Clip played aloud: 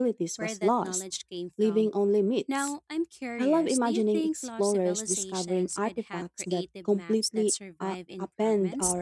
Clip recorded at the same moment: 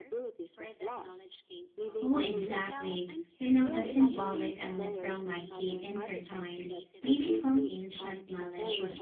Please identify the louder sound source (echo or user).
user